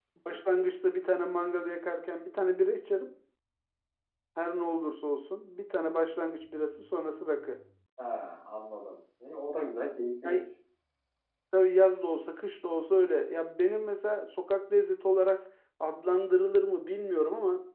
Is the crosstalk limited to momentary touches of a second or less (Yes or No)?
Yes